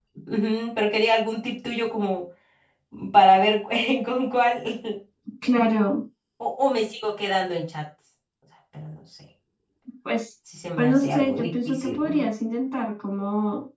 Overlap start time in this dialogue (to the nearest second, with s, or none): 11 s